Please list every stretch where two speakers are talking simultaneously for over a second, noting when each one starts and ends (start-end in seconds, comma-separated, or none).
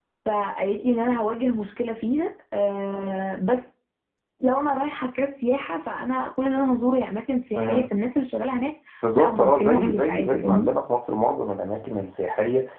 9.2-10.7